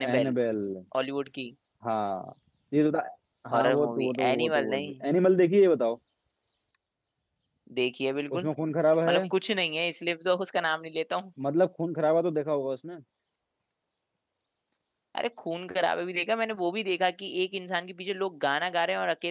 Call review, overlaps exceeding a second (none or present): present